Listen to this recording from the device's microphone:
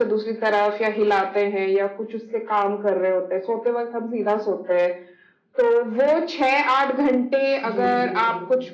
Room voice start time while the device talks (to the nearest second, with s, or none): 8 s